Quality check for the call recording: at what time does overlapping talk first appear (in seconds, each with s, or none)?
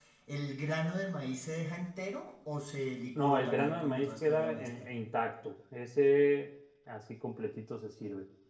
3.2 s